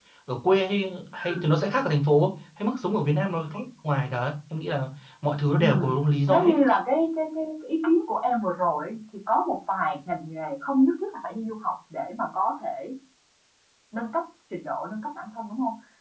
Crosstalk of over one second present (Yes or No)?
No